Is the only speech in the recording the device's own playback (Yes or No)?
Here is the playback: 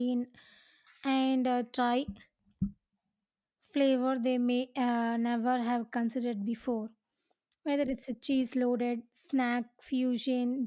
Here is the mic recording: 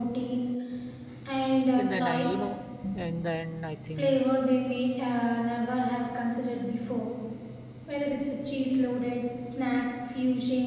No